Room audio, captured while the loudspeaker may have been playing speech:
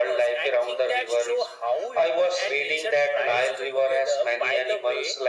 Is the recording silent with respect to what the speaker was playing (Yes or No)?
No